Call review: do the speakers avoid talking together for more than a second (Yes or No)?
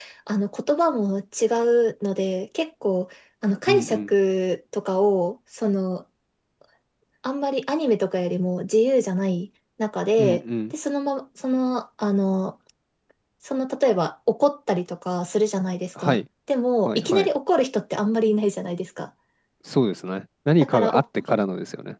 Yes